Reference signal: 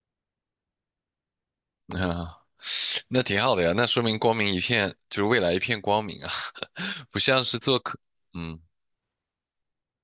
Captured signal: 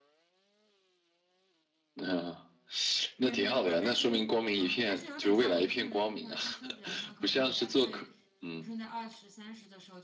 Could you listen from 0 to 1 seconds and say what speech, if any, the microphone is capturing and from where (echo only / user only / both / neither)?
neither